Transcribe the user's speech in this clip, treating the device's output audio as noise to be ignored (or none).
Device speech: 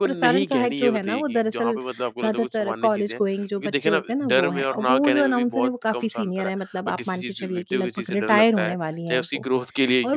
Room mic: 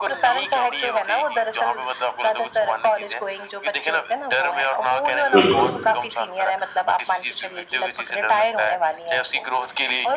बिल्कुल।